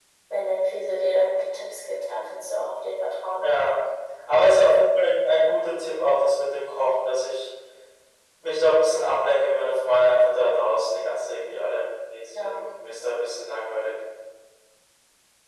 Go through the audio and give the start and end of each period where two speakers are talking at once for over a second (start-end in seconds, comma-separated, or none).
none